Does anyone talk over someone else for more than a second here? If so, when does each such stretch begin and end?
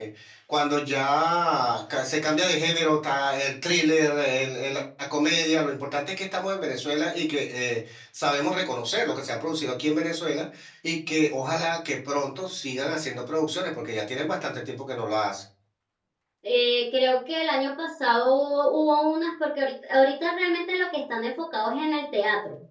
none

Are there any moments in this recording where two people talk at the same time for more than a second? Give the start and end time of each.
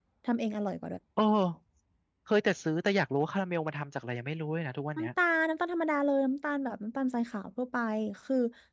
none

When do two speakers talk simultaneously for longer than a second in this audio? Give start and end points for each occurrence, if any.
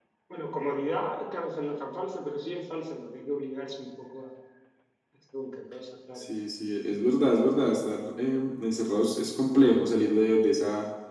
none

